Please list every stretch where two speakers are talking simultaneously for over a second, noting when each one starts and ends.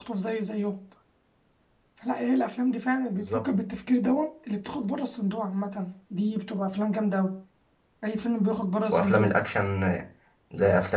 none

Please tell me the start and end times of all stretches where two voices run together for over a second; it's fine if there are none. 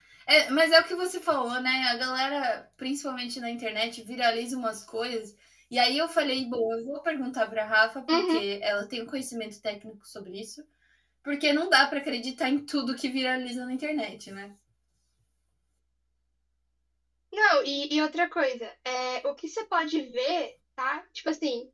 none

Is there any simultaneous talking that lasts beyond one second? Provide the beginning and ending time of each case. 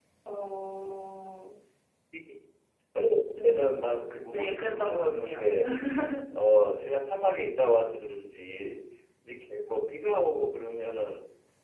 4.2-5.5

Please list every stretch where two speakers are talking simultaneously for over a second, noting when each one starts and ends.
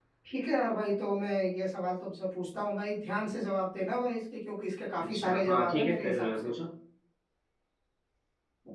5.0-6.5

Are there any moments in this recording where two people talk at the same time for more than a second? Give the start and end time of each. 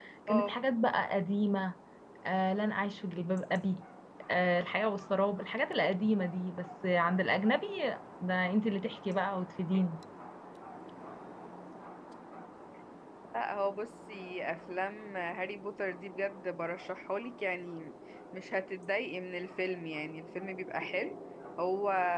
none

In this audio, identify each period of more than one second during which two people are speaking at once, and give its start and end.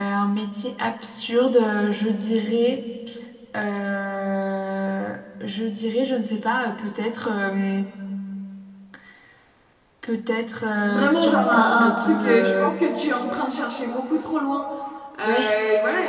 10.9-12.7

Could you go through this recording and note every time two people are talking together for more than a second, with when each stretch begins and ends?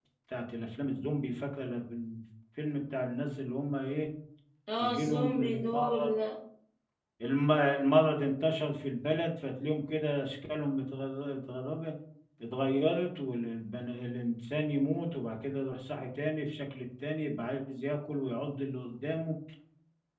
4.8-6.1

